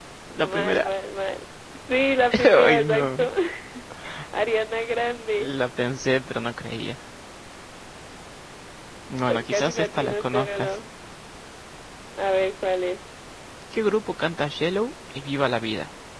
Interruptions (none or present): present